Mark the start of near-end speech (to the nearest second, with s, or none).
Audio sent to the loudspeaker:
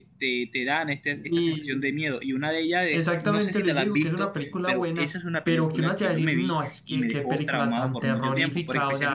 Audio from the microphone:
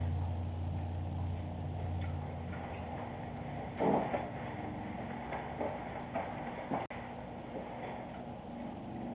none